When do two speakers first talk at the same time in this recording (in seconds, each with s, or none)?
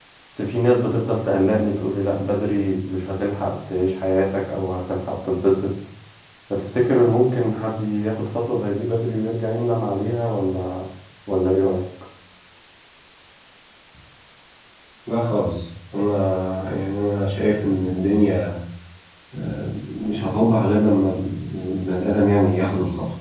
none